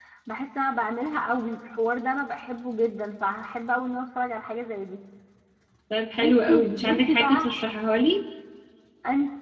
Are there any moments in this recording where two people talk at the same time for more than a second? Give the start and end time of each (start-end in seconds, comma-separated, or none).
6.2-7.5